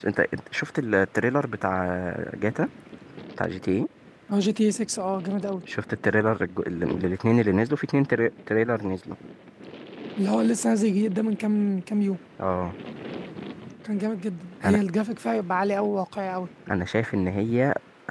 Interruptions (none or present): none